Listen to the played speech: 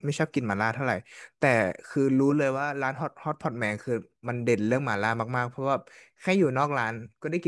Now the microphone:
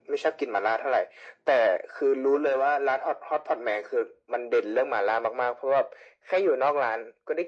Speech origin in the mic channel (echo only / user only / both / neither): echo only